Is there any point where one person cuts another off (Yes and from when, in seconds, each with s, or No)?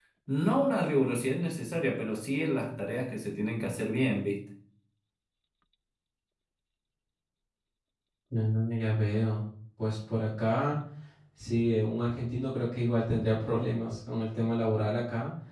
No